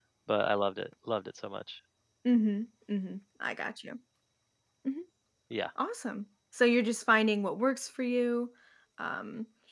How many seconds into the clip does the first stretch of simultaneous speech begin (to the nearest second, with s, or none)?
none